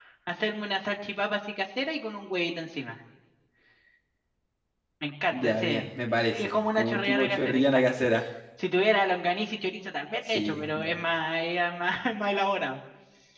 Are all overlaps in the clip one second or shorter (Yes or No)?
No